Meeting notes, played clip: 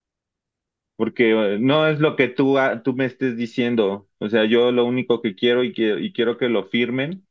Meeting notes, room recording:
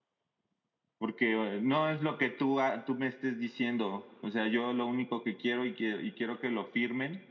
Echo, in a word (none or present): present